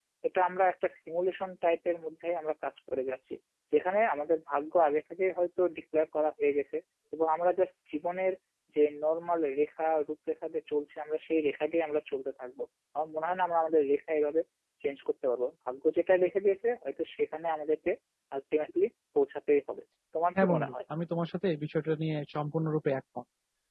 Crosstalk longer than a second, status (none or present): none